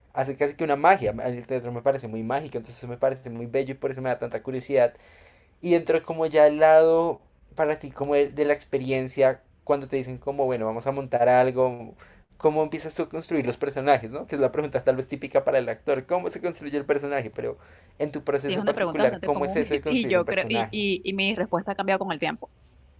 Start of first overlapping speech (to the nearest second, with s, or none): 18 s